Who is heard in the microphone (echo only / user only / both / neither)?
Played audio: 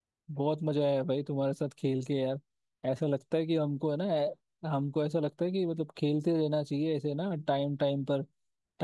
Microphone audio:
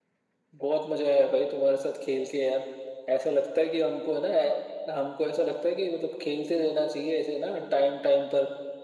echo only